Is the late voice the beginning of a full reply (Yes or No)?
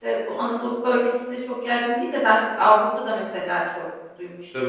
Yes